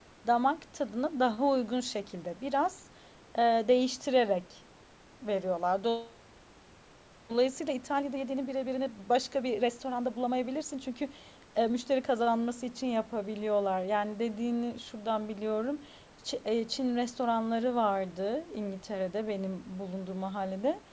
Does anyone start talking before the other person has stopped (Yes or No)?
No